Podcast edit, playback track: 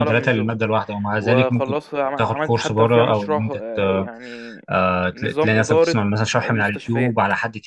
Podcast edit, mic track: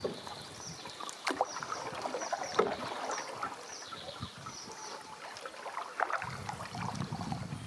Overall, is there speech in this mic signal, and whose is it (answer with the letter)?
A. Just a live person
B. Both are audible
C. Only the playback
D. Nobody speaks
D